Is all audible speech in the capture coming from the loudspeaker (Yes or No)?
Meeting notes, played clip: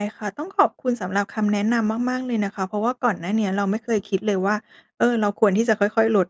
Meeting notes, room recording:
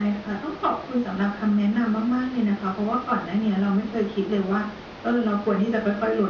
Yes